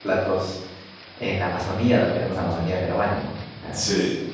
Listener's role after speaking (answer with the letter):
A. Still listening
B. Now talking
A